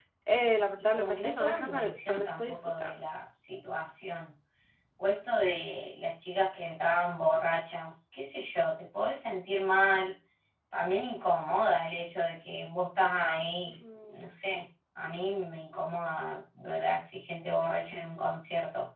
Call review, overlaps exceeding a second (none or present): present